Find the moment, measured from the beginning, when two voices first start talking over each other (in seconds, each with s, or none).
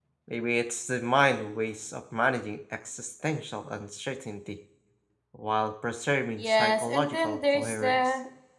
6.4 s